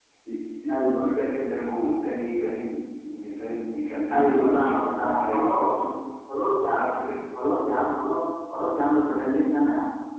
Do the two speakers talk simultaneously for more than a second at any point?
Yes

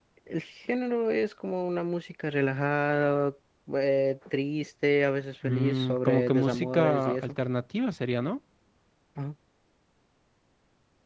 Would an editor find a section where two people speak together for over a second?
Yes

